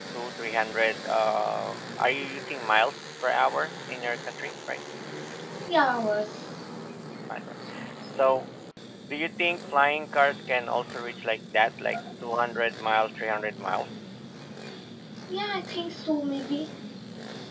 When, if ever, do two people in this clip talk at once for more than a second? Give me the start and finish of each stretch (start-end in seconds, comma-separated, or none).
none